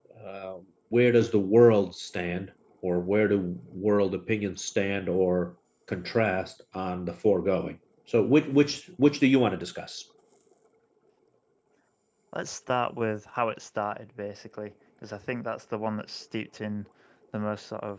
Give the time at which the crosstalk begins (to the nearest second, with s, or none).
none